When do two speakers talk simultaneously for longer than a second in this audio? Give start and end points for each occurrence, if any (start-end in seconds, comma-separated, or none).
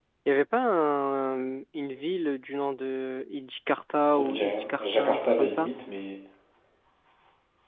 4.1-5.7